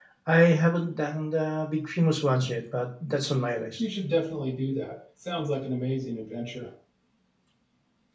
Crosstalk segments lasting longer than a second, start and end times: none

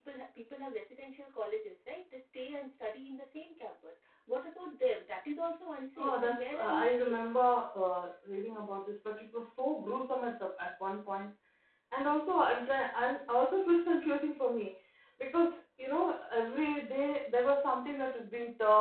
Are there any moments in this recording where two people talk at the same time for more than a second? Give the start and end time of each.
6.0-7.2

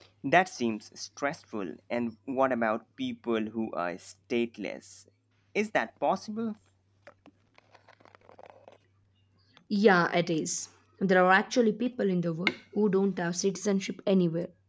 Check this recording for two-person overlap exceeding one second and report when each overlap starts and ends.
none

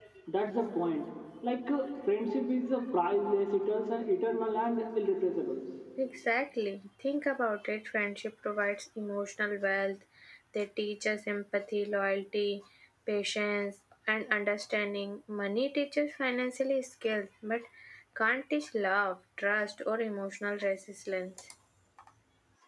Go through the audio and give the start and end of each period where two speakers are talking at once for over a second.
none

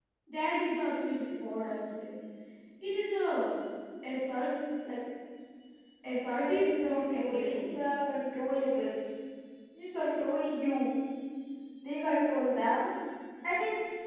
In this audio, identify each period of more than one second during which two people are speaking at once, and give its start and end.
6.4-7.7

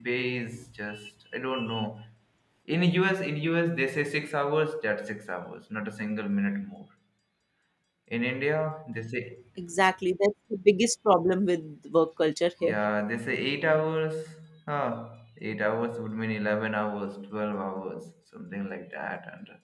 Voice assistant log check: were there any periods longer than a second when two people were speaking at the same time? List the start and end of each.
none

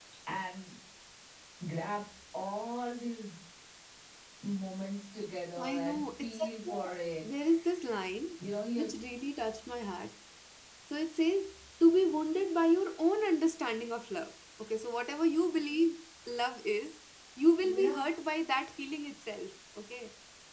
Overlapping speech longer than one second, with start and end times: 5.6-7.3

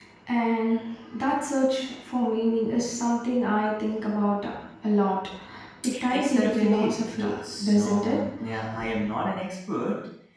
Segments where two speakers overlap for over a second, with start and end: 6.1-8.2

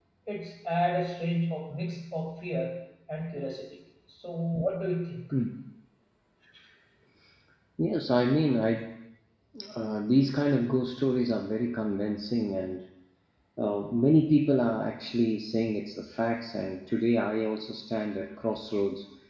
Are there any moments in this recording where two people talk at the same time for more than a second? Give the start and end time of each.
none

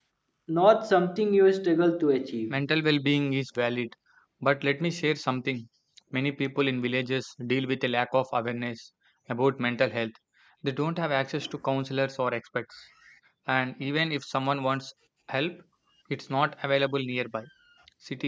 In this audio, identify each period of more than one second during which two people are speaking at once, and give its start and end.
none

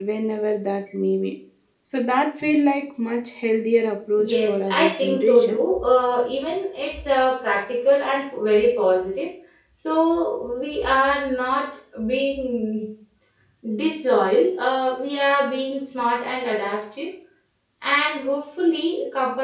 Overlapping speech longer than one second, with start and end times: 4.2-5.7

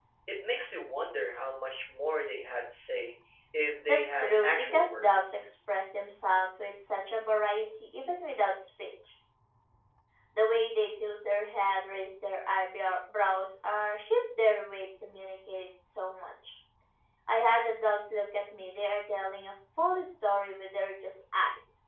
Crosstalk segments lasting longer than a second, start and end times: 3.9-5.3

